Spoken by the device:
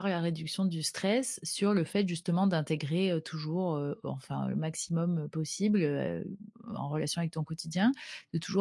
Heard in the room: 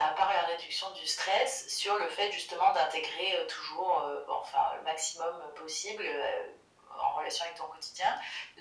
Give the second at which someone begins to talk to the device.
none

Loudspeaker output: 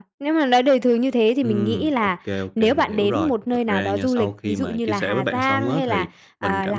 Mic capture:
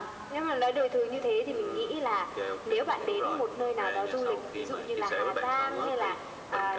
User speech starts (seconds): none

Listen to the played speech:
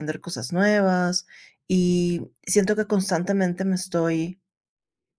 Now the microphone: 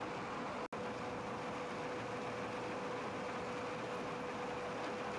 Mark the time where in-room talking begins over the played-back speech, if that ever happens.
none

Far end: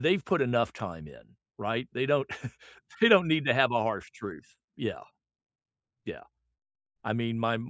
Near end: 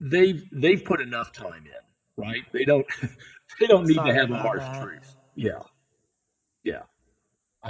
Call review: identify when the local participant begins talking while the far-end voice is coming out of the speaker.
3.8 s

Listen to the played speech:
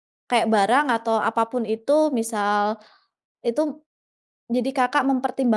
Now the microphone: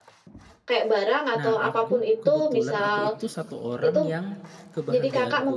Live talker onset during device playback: 1.4 s

